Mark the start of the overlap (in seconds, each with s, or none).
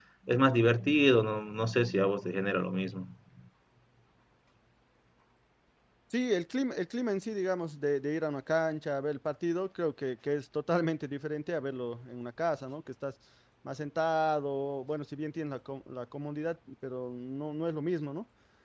none